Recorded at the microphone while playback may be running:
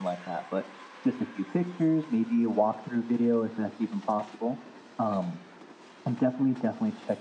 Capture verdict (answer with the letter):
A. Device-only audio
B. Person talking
B